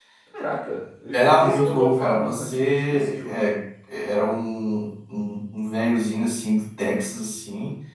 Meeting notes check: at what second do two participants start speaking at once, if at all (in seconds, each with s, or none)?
1.1 s